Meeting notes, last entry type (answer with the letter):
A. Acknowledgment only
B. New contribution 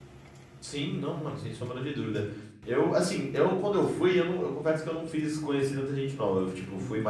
A